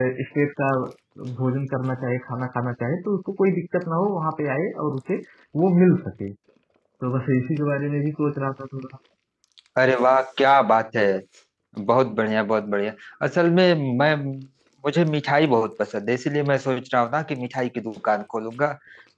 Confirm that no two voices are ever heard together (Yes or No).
Yes